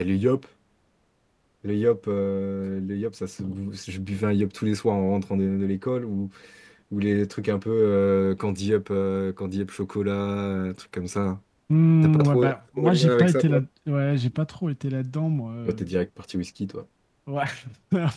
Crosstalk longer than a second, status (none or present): present